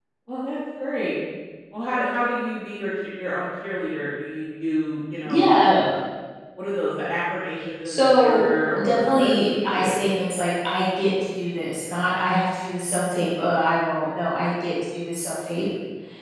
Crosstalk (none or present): present